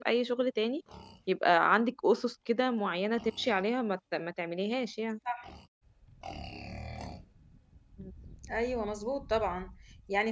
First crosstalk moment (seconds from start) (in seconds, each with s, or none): none